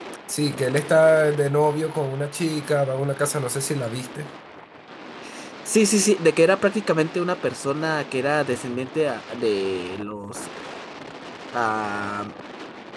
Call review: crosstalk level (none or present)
none